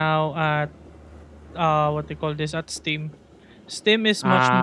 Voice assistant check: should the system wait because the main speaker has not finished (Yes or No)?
Yes